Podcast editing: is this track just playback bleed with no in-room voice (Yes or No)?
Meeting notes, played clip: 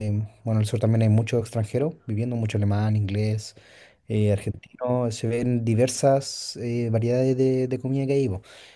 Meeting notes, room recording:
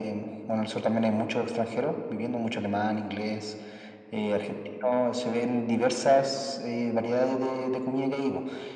Yes